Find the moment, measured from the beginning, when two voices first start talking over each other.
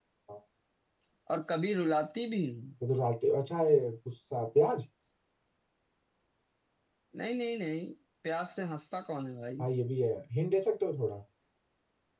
none

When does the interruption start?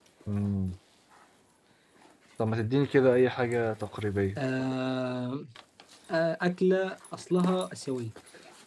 none

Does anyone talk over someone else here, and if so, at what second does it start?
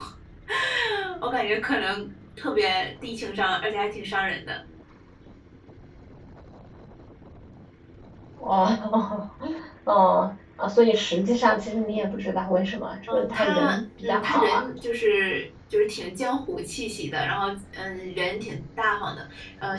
13 s

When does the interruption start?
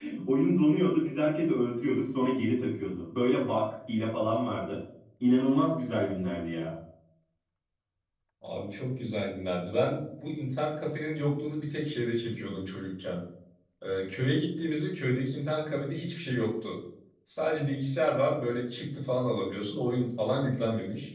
none

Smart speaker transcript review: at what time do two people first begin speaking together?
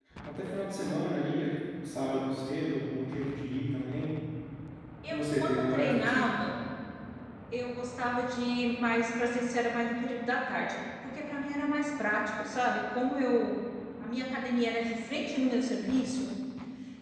5 s

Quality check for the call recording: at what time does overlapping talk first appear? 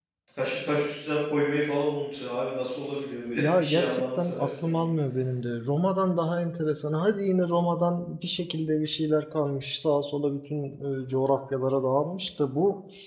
3 s

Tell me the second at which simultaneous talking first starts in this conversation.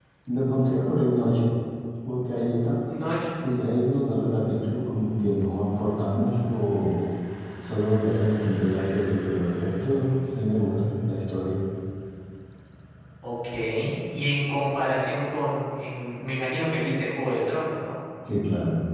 none

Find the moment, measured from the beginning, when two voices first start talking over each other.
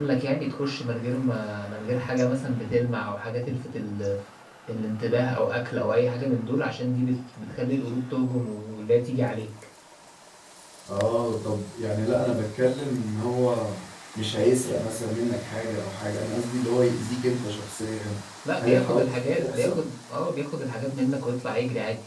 19 s

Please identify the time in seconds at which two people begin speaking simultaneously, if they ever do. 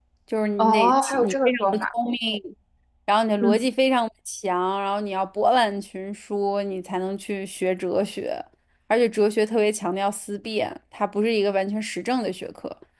1 s

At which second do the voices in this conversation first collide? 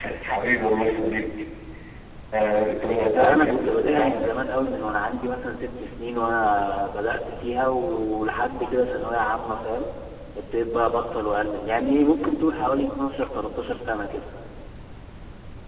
3 s

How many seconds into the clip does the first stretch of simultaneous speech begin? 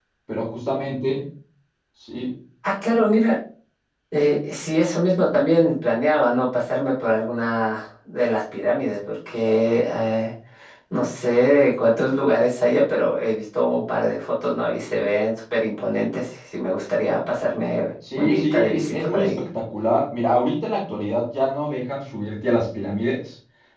18 s

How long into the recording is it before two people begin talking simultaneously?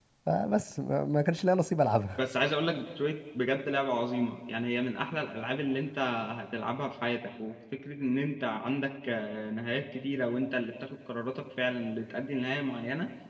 none

